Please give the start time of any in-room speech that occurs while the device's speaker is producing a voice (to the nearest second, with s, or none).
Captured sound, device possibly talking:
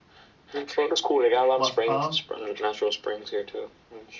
2 s